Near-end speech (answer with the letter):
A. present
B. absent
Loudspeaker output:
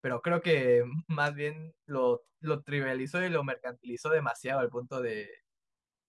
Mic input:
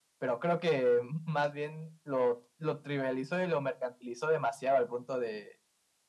B